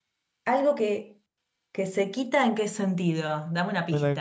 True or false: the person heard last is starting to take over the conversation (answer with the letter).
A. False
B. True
B